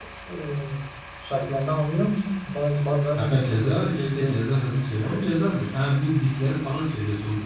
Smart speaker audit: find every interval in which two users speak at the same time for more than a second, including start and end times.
3.2-4.4

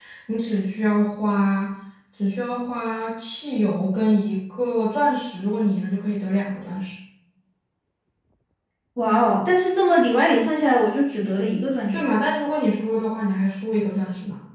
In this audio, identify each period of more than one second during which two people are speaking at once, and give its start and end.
none

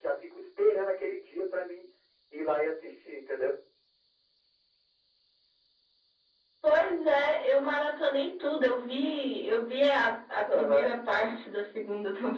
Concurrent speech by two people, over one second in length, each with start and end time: none

